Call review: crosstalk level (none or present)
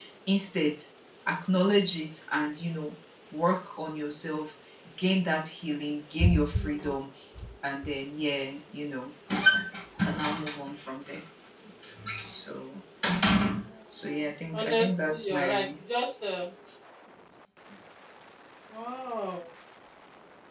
present